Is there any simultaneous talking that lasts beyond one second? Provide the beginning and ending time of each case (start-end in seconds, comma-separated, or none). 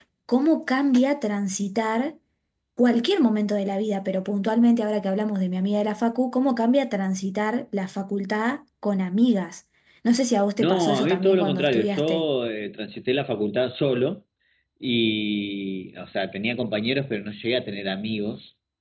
10.6-12.2